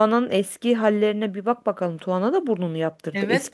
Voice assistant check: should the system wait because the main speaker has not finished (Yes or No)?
No